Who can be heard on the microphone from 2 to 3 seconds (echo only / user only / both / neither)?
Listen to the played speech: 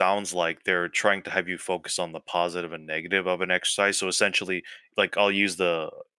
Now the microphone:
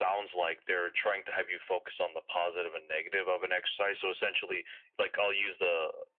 echo only